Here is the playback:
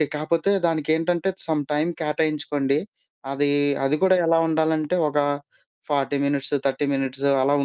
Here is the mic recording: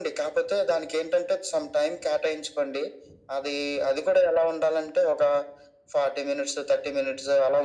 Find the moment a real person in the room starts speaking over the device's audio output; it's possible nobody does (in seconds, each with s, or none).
none